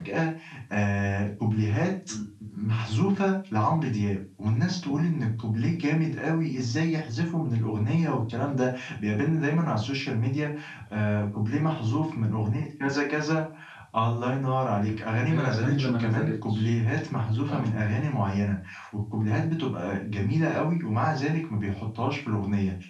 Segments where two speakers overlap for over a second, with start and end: 15.2-16.7

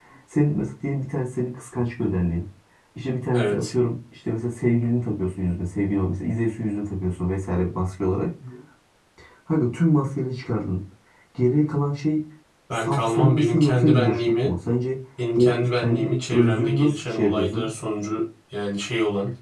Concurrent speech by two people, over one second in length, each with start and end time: 12.7-14.5, 15.4-17.7

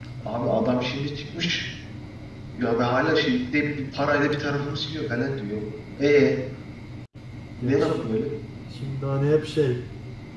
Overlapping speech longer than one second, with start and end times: none

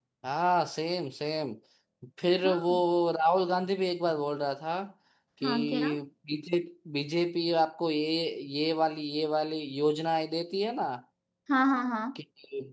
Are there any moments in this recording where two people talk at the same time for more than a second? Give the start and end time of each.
none

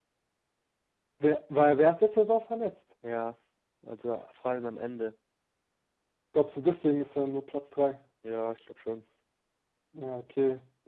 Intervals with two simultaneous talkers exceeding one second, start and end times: none

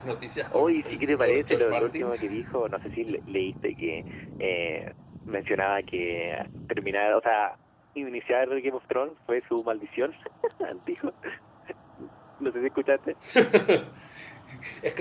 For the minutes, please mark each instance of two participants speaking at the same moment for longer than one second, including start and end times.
0.5-2.1

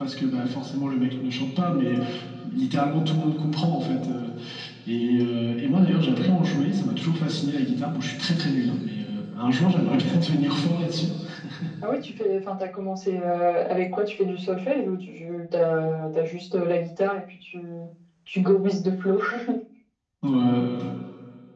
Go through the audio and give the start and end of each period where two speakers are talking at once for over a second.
none

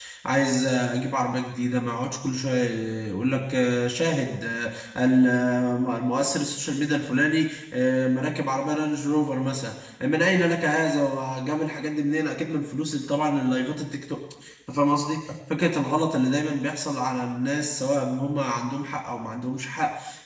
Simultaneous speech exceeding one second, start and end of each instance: none

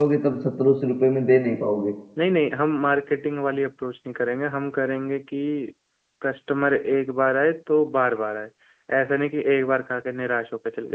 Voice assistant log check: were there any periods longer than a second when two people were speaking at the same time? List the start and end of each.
none

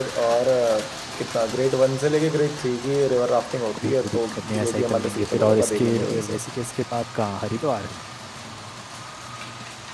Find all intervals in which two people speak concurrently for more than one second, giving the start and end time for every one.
3.8-6.2

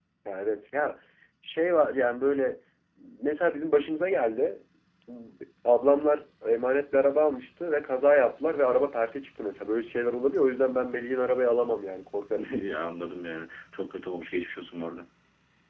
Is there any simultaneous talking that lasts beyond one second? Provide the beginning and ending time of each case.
none

